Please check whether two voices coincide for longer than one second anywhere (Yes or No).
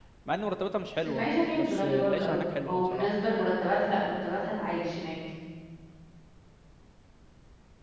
Yes